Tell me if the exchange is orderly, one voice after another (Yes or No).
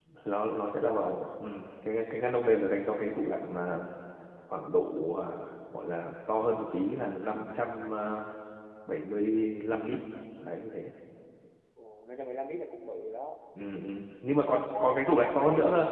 No